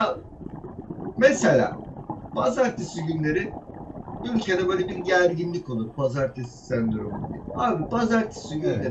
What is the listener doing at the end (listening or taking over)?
listening